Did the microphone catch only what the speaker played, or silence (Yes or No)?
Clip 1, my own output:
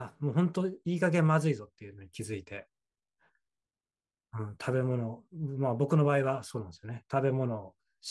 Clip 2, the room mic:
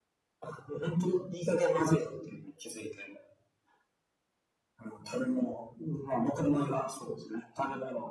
Yes